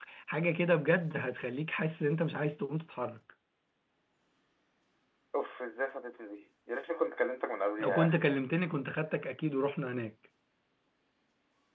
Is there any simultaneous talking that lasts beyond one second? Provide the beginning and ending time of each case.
none

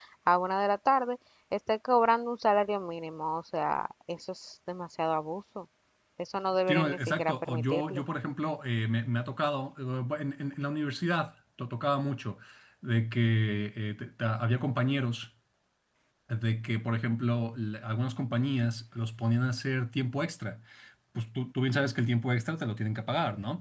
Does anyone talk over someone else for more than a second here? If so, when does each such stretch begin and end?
6.7-8.0

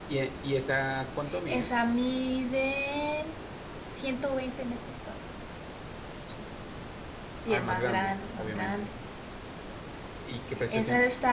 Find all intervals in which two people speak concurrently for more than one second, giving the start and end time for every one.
7.5-8.7

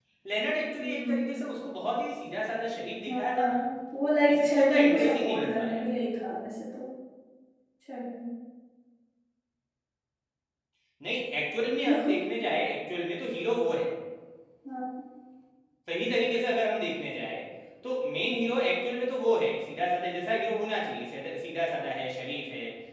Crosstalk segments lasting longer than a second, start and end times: 4.3-5.8

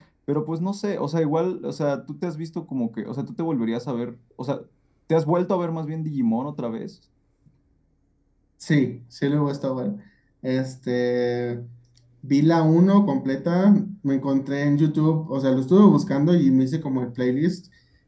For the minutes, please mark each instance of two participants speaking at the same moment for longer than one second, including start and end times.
none

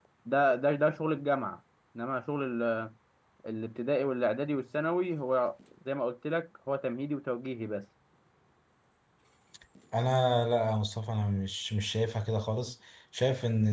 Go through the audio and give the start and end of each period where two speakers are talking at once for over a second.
none

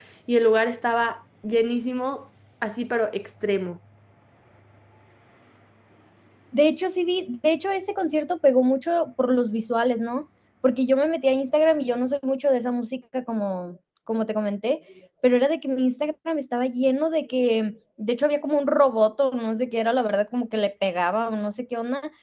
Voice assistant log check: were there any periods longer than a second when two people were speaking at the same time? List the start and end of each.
none

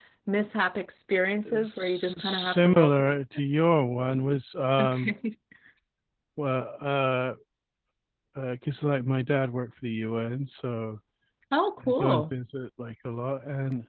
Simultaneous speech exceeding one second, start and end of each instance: 1.6-3.0

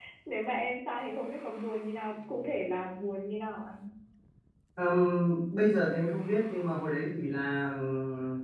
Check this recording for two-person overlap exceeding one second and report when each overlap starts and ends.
none

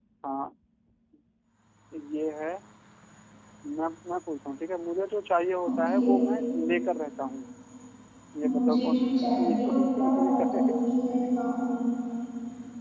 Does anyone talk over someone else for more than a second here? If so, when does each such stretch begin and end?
8.4-10.6

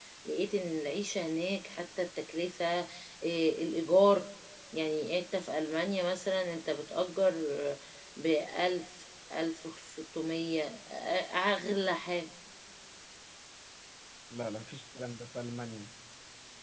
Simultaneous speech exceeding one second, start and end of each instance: none

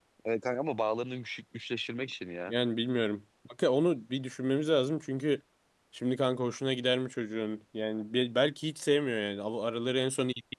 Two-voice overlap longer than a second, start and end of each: none

